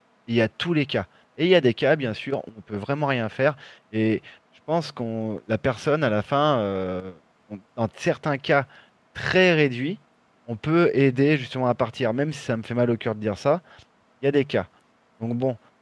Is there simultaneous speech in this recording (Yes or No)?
No